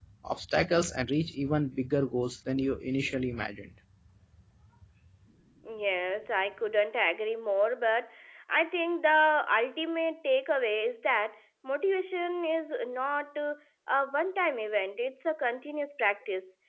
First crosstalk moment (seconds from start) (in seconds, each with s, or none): none